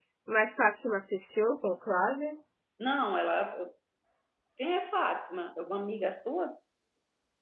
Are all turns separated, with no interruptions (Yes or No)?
Yes